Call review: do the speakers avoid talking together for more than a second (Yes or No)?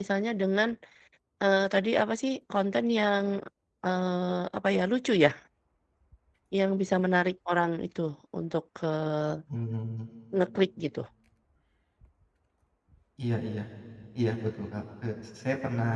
Yes